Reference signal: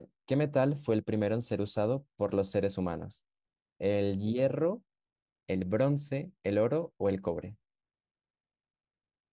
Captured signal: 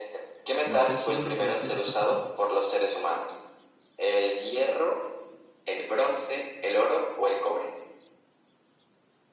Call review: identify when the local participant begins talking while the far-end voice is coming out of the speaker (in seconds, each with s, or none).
0.6 s